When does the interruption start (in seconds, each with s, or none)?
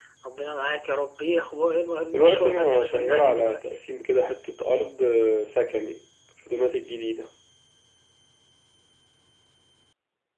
2.1 s